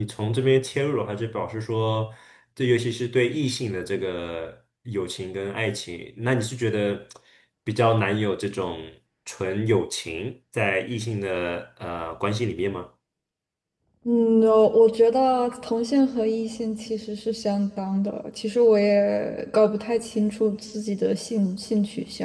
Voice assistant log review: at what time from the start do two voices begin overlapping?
none

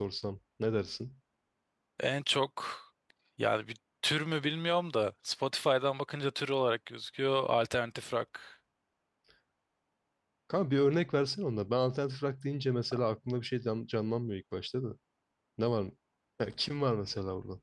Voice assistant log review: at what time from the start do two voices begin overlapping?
none

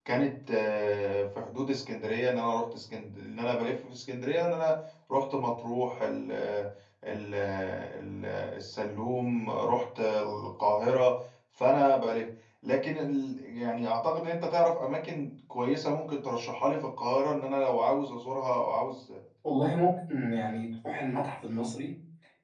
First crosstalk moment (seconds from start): none

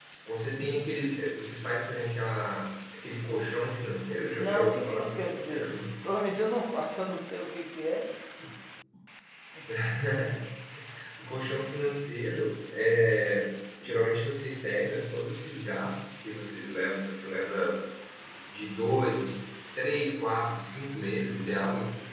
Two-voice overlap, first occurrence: 4.4 s

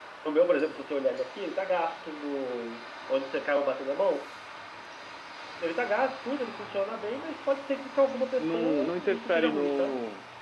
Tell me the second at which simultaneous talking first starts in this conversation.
8.4 s

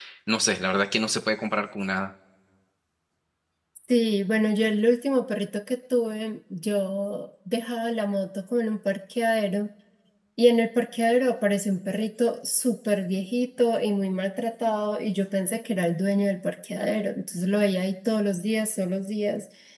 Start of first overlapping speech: none

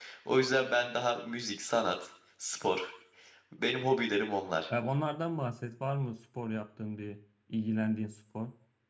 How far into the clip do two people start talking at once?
none

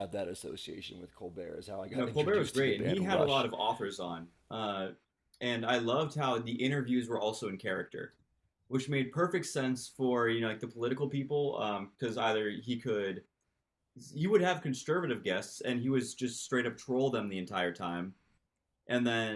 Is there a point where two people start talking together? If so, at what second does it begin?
1.9 s

